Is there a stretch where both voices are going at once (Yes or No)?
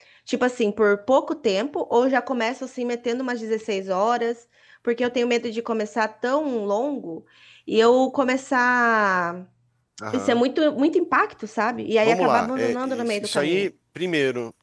Yes